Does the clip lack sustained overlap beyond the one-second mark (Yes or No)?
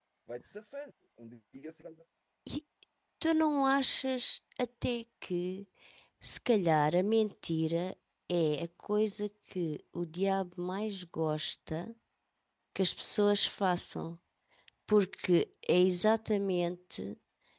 Yes